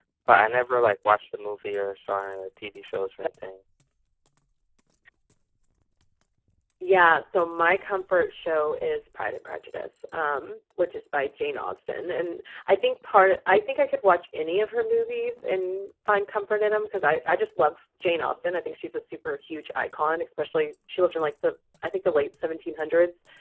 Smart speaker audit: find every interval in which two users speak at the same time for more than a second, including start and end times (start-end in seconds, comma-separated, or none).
none